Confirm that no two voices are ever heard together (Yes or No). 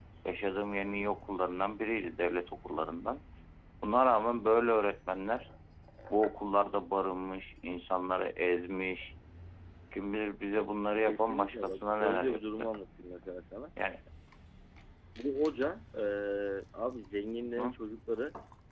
No